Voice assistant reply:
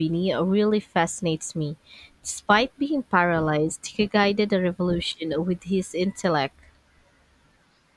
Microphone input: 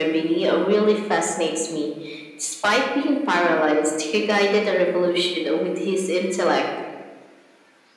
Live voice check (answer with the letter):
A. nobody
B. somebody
A